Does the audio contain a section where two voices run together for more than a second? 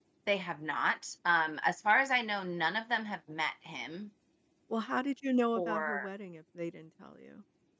No

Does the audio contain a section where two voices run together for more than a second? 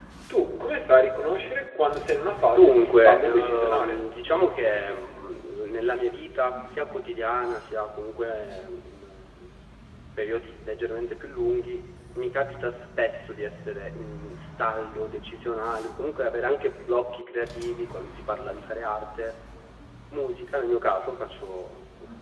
Yes, from 2.5 s

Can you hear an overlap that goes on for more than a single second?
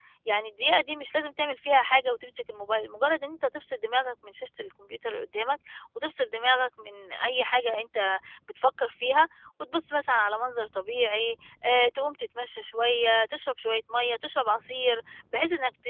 No

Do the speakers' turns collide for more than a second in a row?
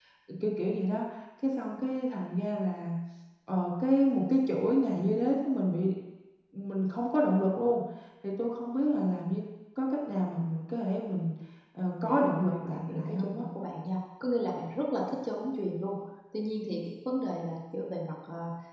Yes, from 11.8 s

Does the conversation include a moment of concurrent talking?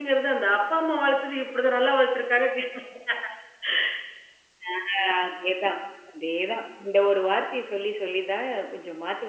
No

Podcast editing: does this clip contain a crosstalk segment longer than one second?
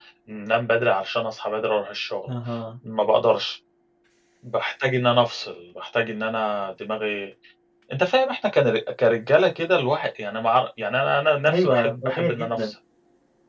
Yes, from 11.5 s

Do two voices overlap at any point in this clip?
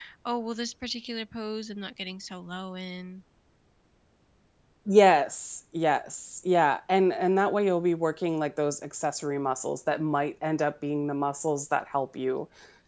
No

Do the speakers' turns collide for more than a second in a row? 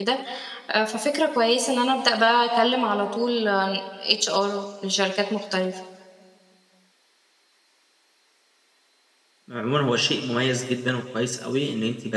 No

